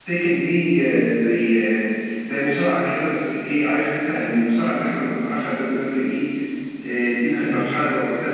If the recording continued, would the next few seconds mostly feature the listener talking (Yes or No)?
No